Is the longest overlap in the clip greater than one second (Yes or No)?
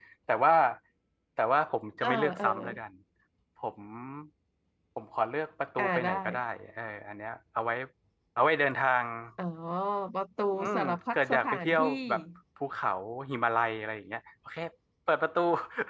Yes